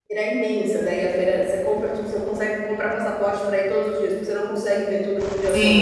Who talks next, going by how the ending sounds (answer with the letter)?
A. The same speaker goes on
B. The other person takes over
B